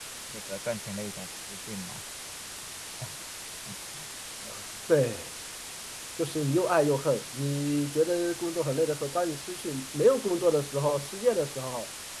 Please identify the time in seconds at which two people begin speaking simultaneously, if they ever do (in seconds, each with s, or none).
none